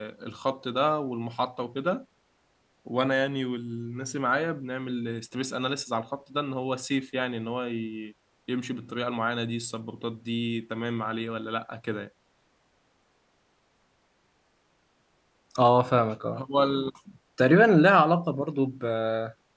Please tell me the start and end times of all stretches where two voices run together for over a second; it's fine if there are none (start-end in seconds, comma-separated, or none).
none